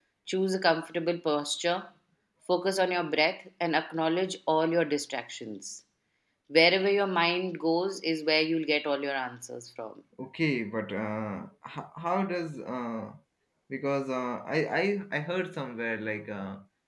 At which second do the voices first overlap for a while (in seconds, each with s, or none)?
none